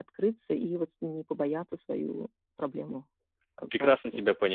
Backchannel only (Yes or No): No